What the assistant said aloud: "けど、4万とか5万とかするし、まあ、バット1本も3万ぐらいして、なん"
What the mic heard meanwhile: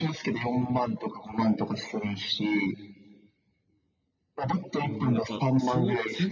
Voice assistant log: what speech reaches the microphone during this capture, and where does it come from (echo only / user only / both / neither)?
both